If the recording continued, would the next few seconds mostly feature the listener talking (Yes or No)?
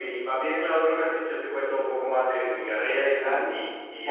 Yes